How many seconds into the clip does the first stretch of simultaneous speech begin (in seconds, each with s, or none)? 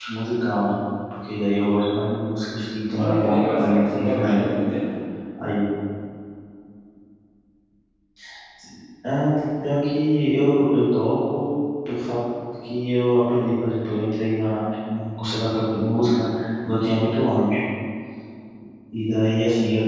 2.9 s